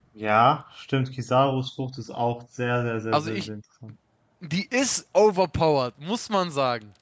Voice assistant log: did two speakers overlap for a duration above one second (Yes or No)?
No